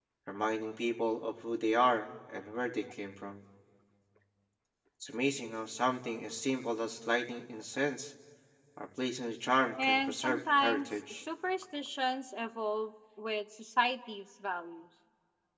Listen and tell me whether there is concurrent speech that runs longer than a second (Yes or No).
Yes